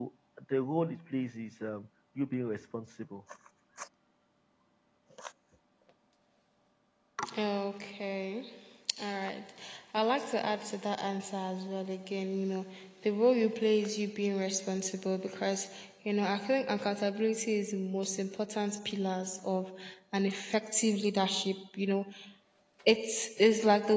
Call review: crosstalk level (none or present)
none